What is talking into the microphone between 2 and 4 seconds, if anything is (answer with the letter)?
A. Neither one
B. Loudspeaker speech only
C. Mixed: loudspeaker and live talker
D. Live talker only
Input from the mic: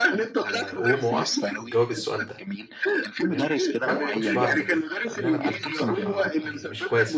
C